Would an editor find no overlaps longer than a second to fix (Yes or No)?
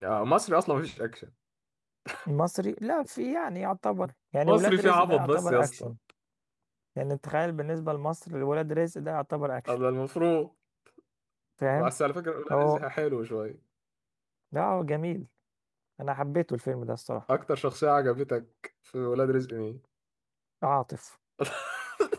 No